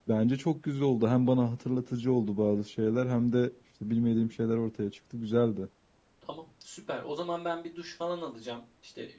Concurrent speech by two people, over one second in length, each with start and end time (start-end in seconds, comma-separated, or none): none